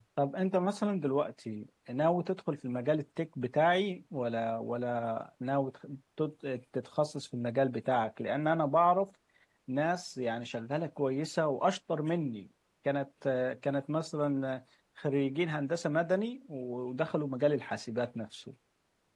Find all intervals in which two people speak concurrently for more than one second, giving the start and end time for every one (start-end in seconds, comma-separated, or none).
none